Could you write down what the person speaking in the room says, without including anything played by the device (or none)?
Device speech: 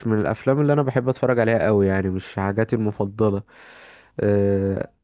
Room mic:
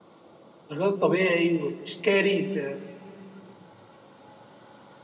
الغير طبيعي والسكاري في